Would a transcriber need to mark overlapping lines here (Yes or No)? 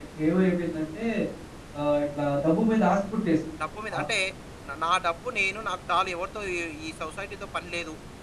No